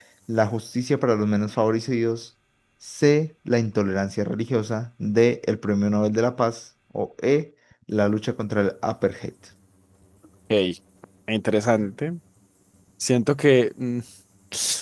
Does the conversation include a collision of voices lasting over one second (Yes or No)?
No